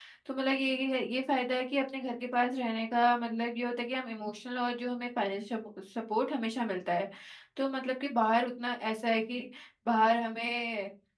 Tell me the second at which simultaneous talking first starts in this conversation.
none

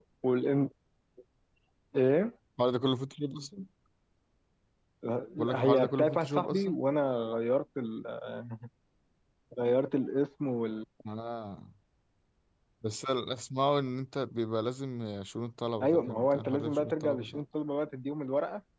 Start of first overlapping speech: 5.5 s

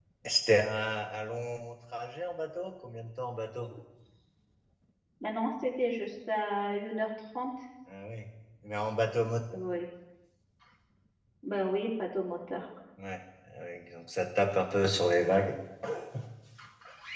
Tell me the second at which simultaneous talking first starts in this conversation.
none

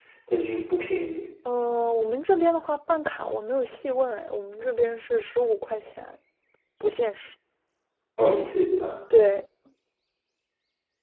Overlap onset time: none

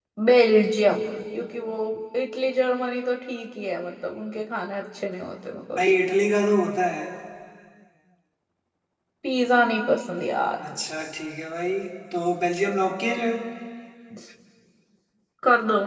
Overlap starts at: none

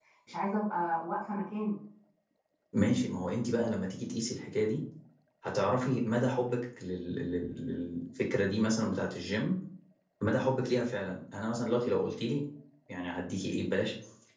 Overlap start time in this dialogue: none

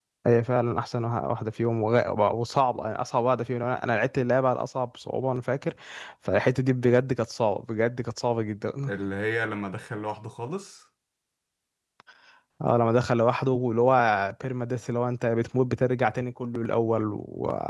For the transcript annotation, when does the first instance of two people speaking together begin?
none

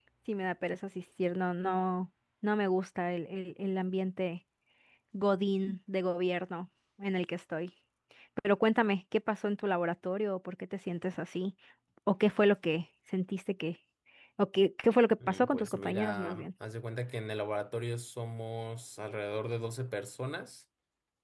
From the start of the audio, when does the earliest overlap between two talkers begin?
15.3 s

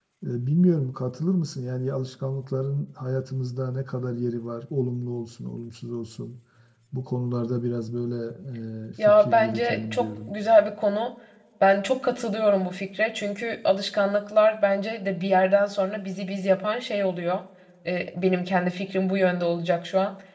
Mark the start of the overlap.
9.1 s

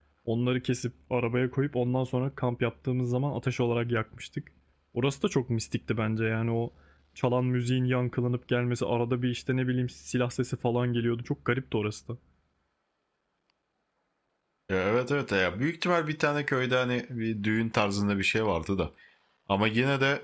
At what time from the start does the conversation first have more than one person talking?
none

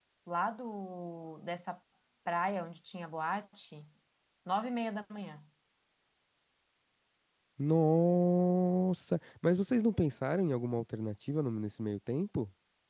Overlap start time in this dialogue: none

